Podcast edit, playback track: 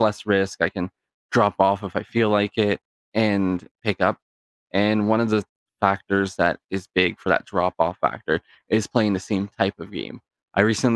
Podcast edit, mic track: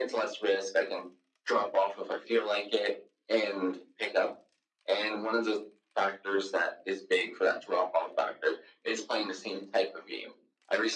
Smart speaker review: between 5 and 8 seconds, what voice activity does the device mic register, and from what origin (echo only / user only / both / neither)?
echo only